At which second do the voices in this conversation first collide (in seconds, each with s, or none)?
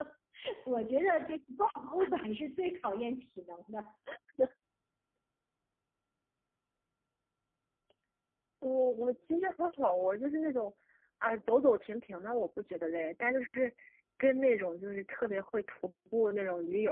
none